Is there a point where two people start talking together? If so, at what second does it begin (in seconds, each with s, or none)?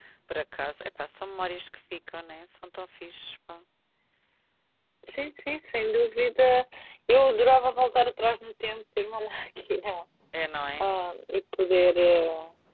none